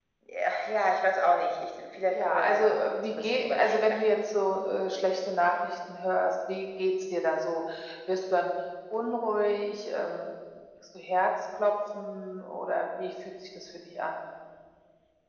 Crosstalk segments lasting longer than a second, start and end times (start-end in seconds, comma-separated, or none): 2.1-4.0